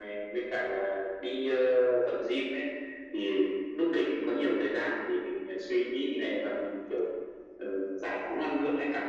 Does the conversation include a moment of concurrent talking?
No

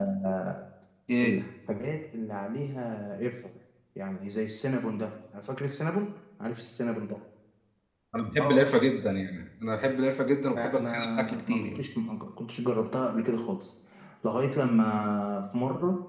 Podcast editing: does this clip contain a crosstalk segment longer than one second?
Yes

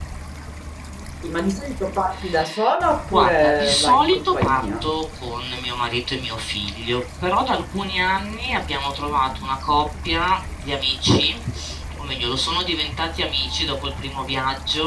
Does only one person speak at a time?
No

